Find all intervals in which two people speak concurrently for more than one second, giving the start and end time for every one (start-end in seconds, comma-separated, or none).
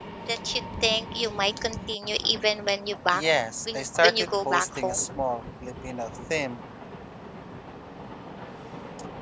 3.7-5.0